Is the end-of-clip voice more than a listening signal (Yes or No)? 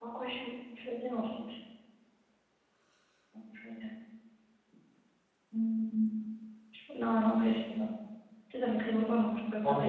Yes